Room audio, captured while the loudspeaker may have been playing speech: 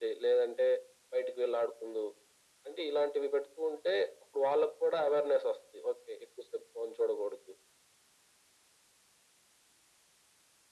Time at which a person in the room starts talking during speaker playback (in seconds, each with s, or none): none